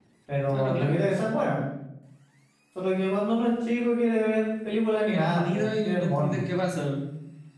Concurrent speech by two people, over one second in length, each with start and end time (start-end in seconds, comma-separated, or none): 5.1-6.3